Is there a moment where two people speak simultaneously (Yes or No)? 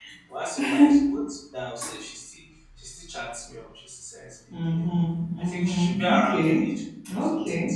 Yes